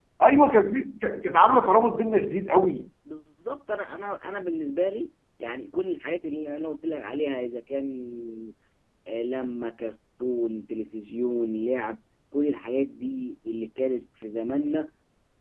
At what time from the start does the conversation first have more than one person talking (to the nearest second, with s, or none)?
none